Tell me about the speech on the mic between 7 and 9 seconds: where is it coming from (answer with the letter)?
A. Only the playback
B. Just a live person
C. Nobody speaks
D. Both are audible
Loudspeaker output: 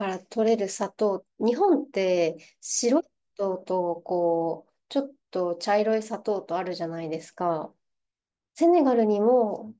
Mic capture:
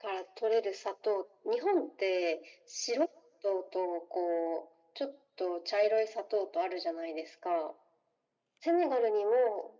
A